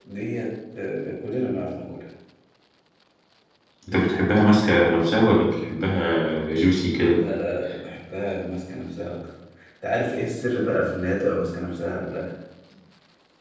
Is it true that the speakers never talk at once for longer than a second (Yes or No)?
Yes